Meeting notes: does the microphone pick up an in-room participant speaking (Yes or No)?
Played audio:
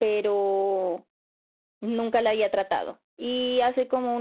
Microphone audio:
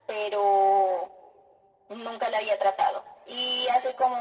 No